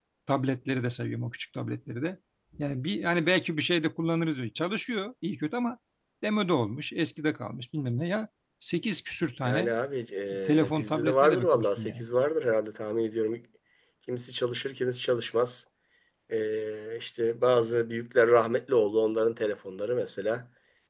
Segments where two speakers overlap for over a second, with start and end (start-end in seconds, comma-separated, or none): 10.6-12.1